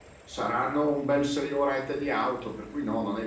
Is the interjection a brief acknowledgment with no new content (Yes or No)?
No